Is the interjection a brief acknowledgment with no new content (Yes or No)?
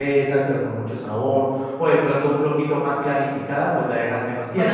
No